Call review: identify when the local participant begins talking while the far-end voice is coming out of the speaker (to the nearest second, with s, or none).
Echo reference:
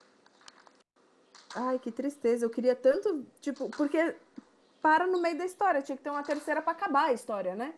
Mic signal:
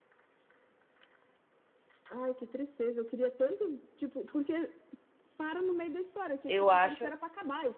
6 s